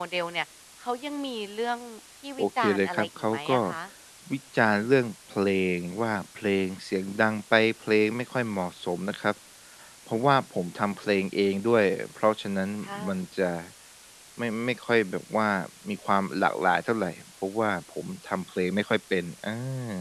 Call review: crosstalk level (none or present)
present